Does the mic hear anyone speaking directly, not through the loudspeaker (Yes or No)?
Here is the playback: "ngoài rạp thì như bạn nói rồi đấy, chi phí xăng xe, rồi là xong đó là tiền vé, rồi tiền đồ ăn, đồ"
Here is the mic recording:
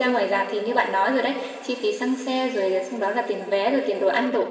No